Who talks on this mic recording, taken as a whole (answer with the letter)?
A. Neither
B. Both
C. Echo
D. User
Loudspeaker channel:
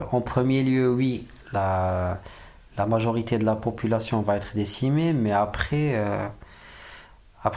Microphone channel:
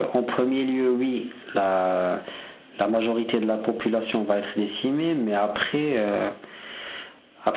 C